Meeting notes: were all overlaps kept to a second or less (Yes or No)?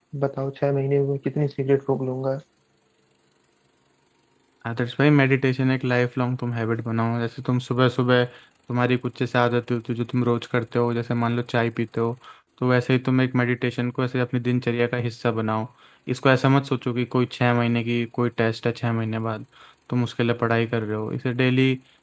Yes